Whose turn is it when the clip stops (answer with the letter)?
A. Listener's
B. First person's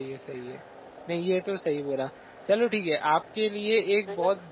B